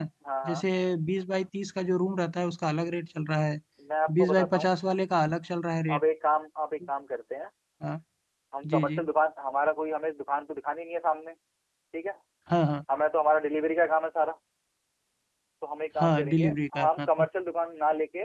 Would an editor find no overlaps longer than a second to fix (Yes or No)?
No